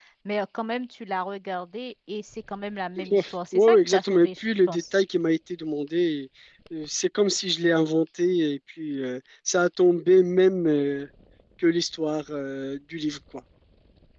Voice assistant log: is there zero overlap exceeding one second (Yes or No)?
No